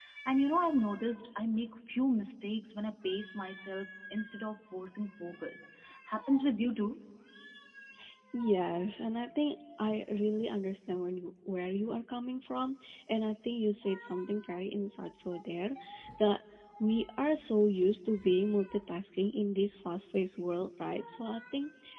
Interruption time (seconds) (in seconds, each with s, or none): none